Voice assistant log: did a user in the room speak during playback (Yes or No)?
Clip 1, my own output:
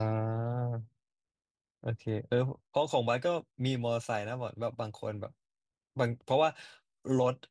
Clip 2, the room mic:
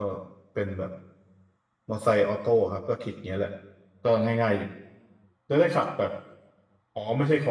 Yes